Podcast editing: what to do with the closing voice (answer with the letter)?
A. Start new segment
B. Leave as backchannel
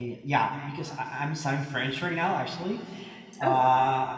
B